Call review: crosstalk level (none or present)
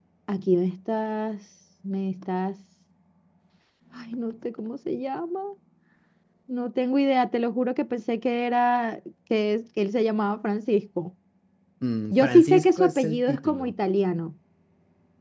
present